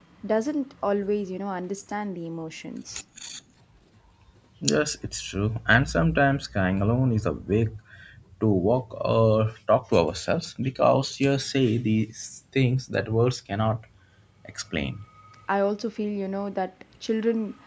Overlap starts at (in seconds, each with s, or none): none